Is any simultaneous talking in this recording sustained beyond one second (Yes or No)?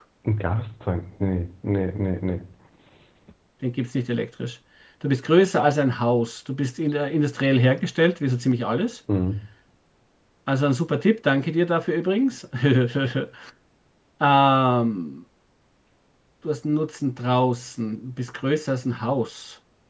No